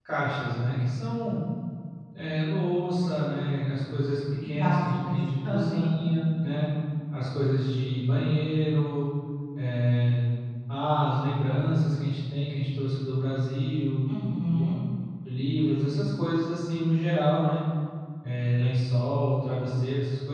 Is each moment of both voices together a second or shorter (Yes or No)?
No